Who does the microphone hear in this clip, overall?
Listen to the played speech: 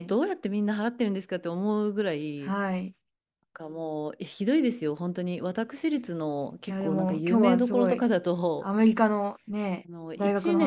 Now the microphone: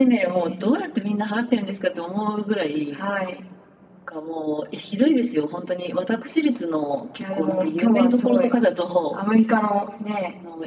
echo only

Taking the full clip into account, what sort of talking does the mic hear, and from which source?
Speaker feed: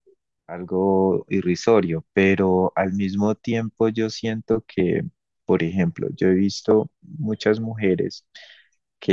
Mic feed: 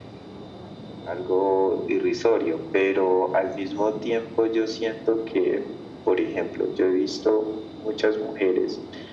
echo only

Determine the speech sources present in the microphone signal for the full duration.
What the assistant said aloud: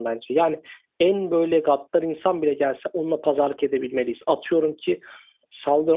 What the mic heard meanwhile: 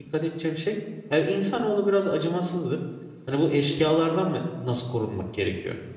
user only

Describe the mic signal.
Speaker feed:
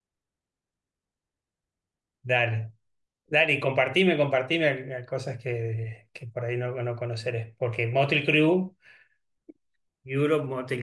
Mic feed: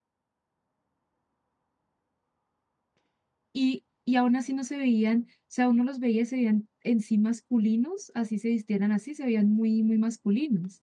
user only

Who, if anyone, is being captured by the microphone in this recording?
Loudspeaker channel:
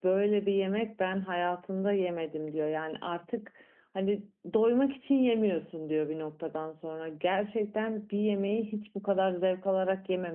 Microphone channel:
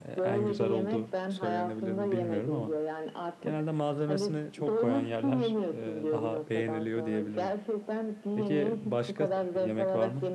both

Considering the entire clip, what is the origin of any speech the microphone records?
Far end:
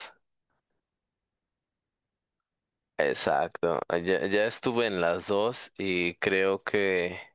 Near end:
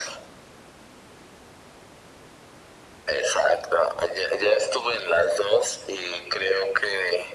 echo only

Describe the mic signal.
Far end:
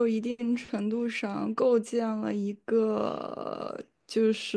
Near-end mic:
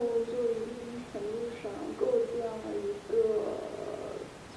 echo only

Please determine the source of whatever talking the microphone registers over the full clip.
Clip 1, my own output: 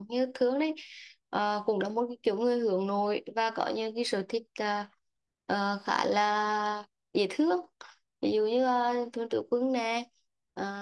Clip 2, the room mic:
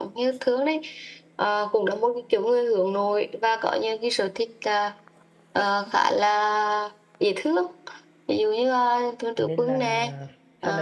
both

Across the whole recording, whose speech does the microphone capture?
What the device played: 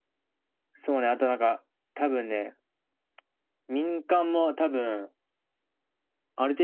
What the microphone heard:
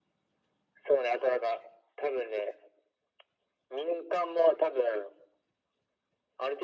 echo only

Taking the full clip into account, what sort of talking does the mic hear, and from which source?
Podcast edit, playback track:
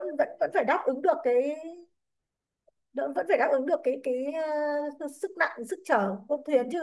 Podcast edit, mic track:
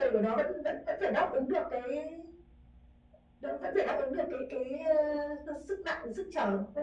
echo only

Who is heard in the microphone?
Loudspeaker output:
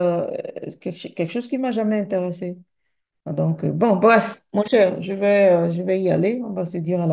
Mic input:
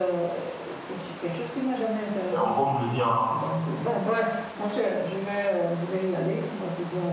both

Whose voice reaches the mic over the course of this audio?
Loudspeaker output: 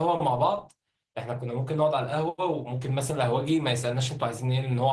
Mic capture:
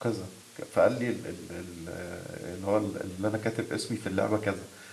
user only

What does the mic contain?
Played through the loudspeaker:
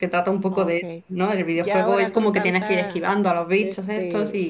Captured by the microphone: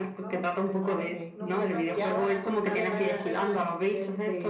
both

